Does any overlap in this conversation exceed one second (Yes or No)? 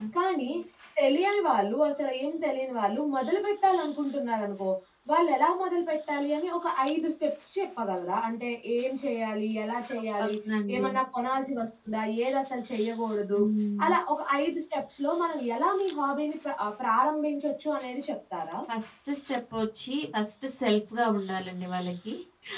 No